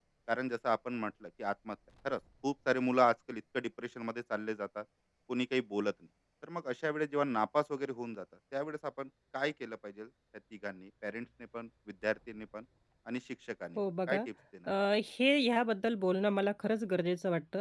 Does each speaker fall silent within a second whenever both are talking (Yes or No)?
Yes